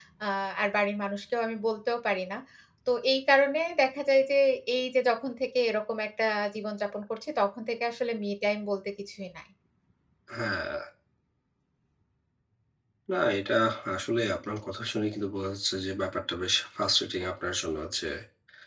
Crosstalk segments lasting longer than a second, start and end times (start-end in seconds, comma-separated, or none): none